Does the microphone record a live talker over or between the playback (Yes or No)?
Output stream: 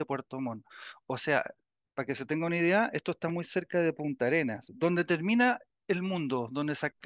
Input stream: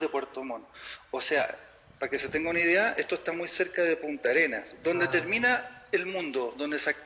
Yes